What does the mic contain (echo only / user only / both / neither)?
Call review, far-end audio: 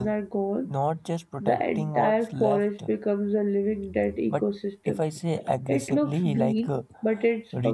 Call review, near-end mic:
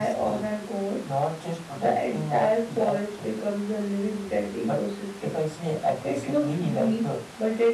echo only